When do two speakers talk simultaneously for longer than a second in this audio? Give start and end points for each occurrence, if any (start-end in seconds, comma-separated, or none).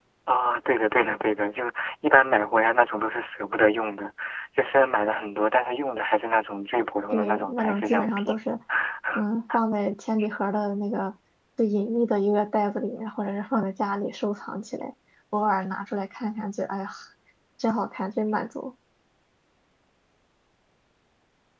7.1-8.4